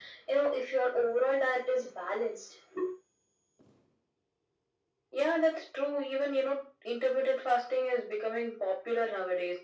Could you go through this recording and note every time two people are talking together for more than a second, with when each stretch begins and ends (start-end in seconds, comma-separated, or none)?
none